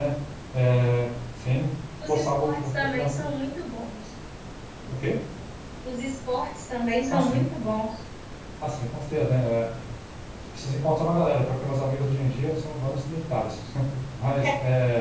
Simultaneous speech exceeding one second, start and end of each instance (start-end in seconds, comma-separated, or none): 2.1-3.3